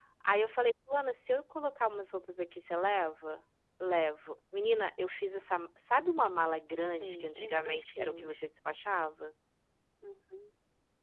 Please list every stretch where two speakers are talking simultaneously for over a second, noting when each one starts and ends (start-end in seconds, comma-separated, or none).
6.9-8.5